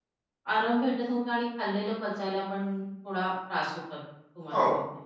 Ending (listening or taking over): taking over